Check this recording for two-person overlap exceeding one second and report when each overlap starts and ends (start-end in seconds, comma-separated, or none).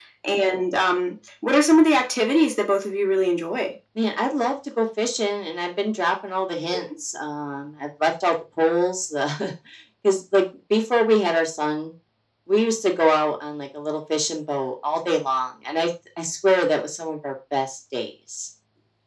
none